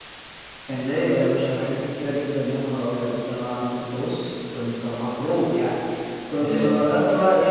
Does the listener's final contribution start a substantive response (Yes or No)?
No